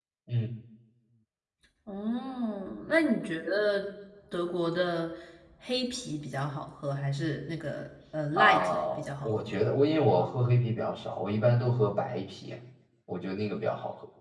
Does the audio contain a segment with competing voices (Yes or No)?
Yes